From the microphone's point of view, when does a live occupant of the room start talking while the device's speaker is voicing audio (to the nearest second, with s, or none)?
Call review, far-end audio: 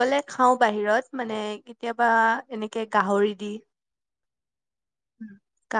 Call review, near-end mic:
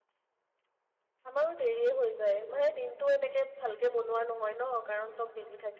1 s